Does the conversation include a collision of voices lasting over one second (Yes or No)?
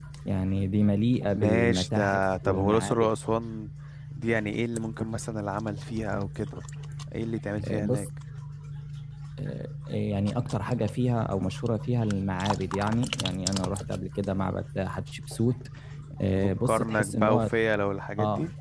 Yes